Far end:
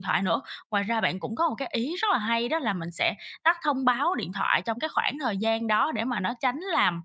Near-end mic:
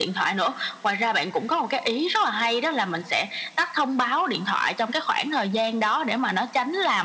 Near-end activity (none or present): none